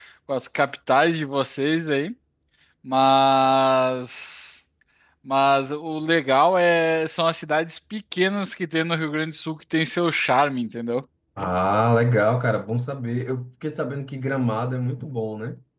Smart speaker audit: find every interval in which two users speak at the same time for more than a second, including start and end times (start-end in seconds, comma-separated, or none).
none